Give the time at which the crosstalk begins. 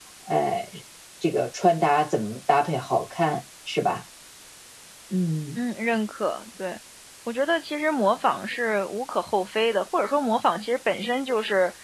none

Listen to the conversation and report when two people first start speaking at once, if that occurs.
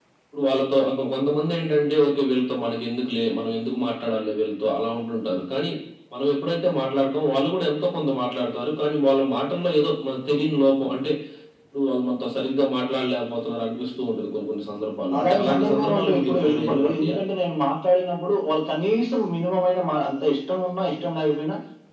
15.1 s

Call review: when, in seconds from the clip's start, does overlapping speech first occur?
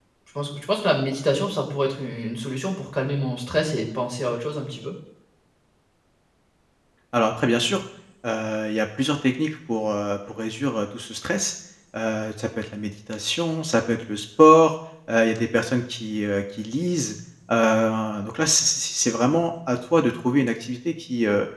none

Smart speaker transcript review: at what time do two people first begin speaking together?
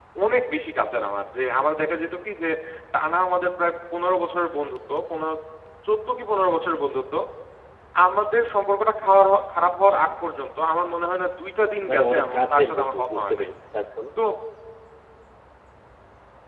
11.9 s

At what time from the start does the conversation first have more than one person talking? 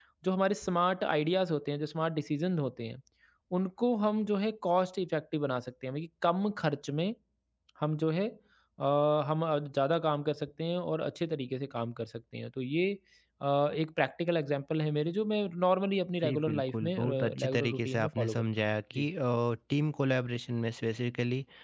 16.2 s

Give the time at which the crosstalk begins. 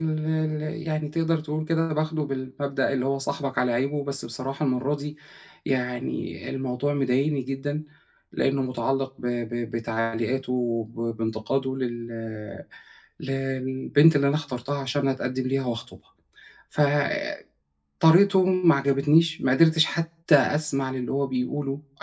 none

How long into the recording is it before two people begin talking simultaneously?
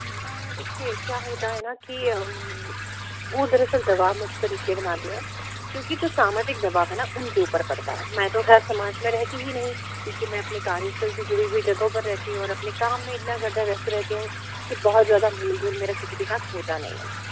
none

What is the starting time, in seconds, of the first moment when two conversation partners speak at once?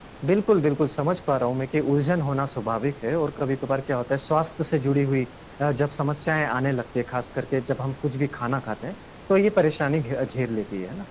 none

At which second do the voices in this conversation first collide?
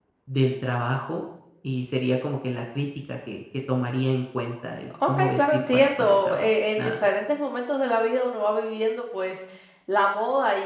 4.9 s

